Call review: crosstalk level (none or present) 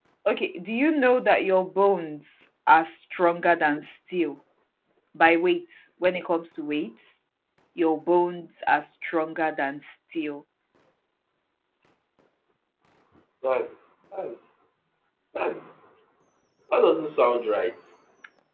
none